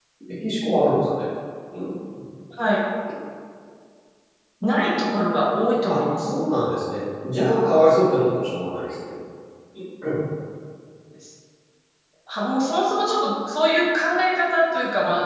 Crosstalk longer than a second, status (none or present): none